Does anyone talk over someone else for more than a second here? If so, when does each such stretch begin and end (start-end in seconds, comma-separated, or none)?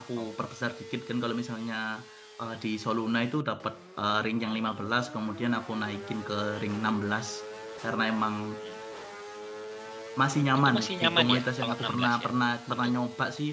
10.6-12.3